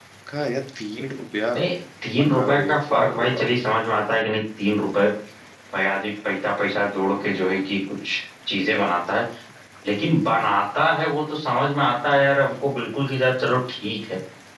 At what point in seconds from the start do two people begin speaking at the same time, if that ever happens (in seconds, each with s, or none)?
2.2 s